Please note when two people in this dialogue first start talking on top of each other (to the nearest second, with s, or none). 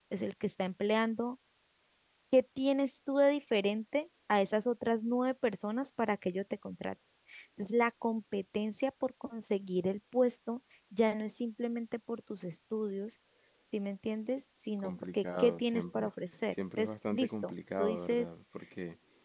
15 s